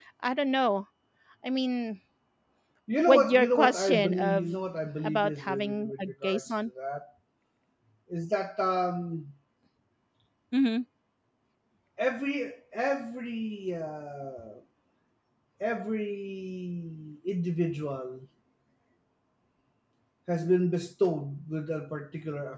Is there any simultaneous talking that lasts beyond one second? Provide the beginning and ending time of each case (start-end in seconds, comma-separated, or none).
3.1-4.5, 5.0-6.4